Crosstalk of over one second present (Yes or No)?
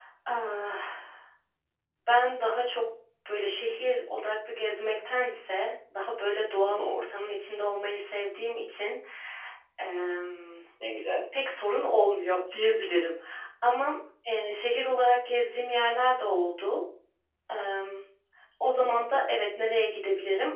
No